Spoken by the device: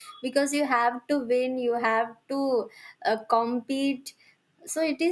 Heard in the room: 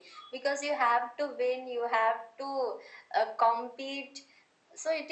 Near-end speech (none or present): none